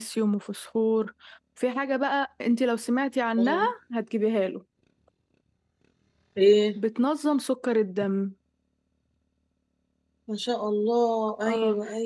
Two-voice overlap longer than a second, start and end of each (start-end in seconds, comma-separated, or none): none